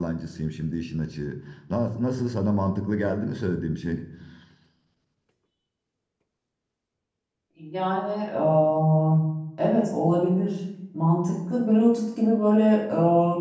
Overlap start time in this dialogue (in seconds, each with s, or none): none